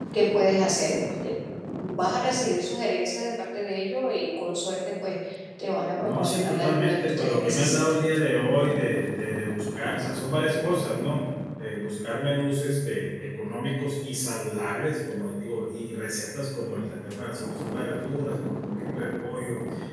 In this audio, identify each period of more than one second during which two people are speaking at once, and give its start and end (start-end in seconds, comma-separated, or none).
6.0-8.0